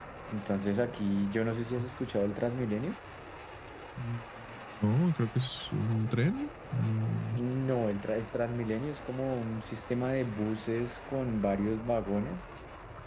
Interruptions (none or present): none